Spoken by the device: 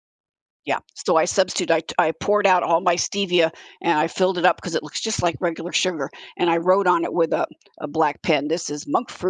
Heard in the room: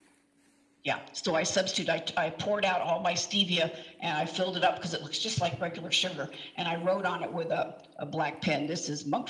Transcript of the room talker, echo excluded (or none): none